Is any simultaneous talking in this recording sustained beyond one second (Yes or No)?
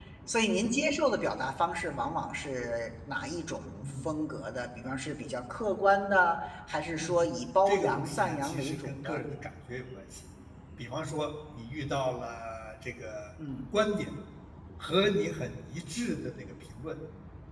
Yes